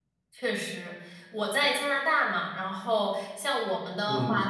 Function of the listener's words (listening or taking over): listening